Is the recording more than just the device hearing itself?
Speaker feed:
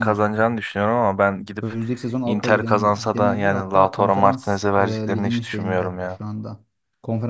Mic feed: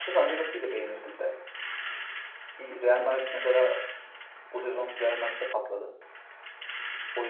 Yes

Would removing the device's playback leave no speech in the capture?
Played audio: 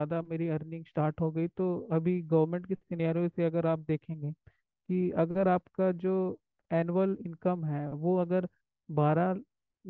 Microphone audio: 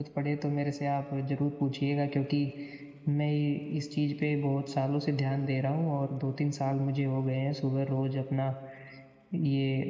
No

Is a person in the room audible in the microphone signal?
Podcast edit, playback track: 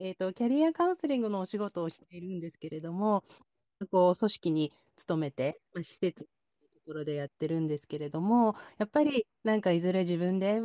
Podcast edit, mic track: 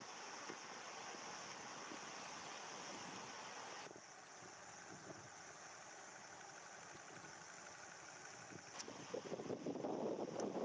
No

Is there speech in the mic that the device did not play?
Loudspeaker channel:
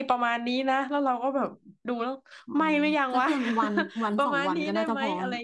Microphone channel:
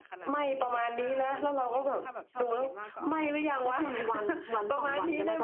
Yes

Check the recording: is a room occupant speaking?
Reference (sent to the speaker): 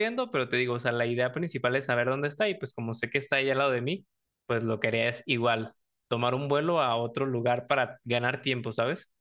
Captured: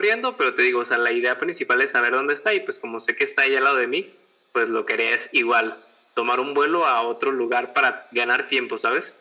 No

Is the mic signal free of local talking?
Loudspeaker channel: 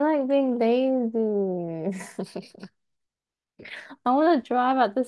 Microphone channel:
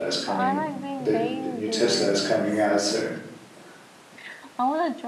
No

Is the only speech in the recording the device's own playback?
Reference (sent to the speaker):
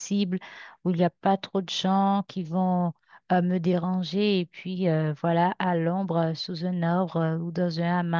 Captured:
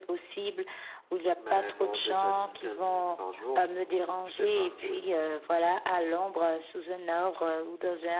No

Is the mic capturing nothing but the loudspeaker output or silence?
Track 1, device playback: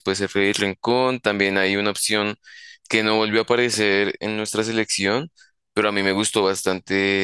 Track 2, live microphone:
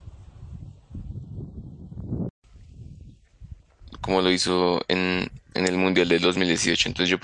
No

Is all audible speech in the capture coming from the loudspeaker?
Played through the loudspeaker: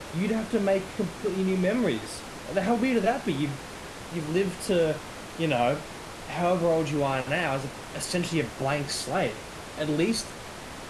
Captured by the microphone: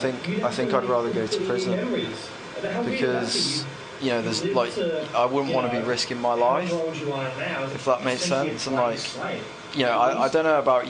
No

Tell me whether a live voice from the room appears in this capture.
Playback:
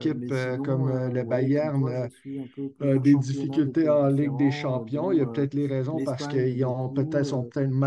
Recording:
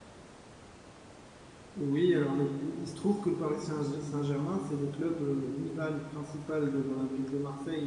Yes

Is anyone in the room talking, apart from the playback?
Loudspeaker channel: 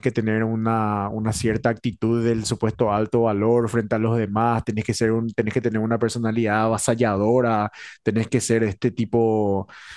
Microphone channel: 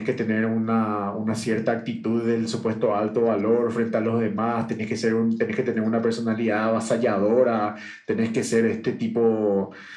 No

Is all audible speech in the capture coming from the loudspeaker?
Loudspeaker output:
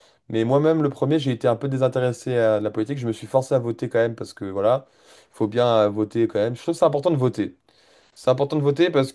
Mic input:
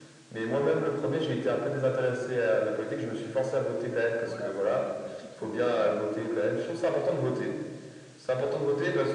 No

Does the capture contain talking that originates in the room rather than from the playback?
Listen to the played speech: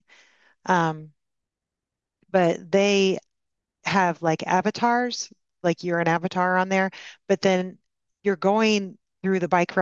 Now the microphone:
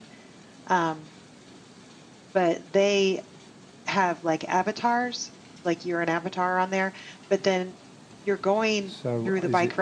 Yes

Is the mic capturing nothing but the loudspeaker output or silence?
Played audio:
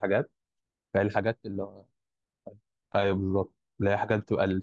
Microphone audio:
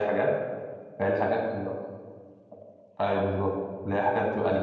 Yes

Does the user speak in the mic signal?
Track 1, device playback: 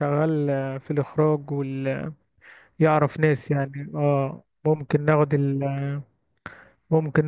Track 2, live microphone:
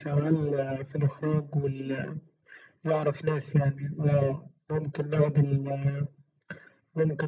No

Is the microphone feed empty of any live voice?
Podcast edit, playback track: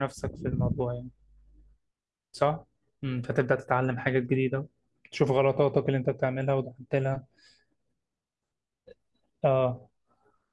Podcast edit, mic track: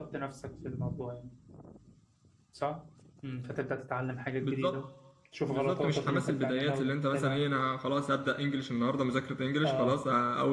No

